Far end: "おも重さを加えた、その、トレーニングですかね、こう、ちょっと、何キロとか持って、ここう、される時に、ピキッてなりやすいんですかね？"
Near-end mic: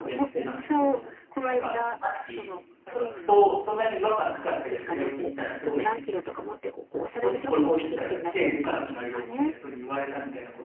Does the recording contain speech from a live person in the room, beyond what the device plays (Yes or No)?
Yes